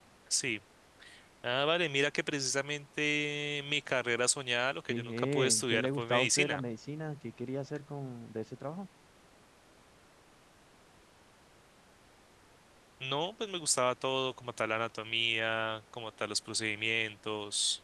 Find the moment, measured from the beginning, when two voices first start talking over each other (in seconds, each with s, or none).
4.9 s